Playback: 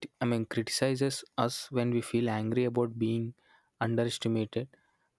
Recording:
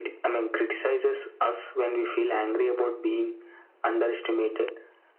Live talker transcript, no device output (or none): none